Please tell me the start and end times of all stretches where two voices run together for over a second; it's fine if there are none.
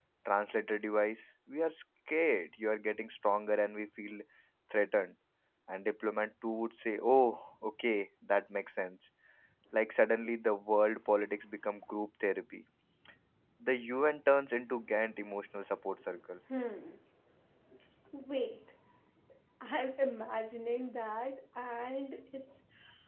none

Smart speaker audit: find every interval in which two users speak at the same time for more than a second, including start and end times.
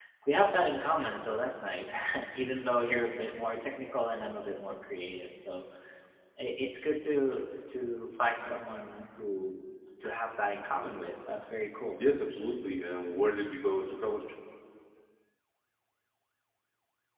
none

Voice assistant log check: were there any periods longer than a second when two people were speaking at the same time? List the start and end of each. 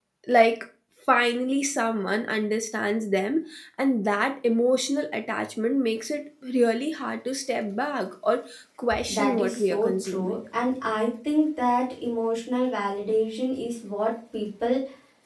9.1-10.3

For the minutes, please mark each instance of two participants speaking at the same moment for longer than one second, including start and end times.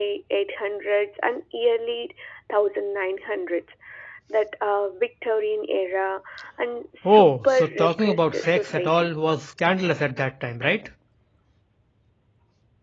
7.0-9.1

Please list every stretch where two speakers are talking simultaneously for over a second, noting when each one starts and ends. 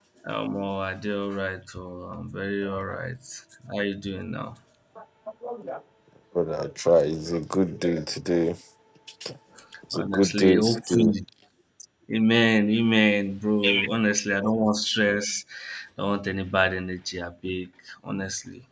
9.9-11.1

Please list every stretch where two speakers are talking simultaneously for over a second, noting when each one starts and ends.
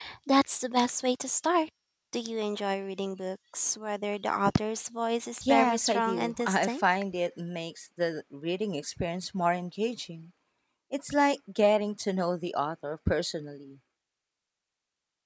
5.5-6.8

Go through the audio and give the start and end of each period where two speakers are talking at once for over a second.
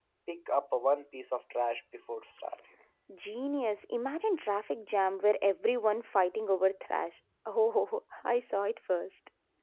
none

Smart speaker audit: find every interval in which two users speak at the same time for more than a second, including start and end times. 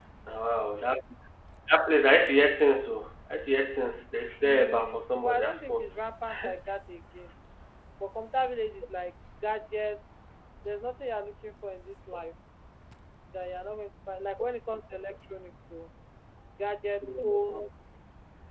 4.4-5.9

